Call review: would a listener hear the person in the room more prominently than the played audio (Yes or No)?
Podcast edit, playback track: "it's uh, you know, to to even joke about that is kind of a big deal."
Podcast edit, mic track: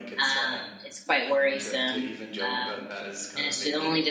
Yes